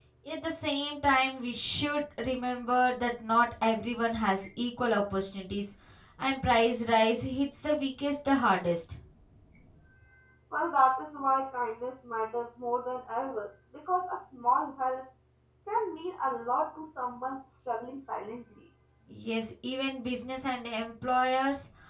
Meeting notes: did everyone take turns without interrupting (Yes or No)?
Yes